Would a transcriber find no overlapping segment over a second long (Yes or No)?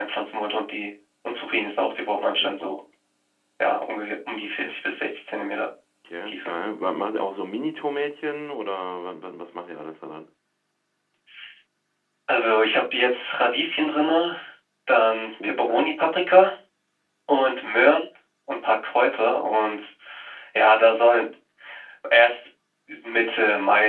Yes